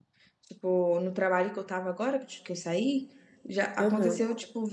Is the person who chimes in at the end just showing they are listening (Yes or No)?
Yes